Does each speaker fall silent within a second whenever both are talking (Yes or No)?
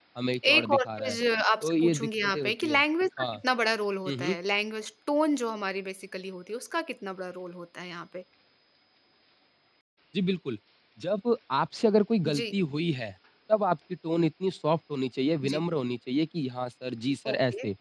No